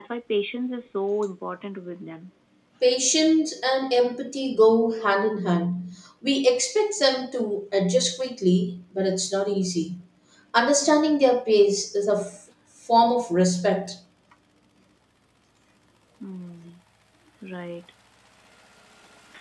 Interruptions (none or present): none